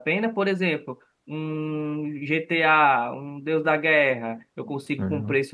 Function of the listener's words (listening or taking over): listening